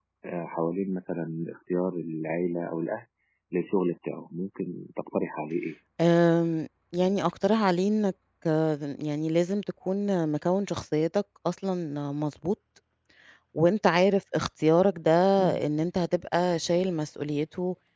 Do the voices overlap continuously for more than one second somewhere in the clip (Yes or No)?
No